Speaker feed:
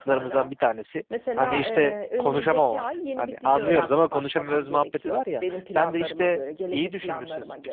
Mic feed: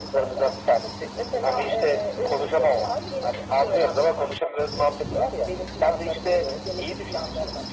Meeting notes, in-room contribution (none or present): none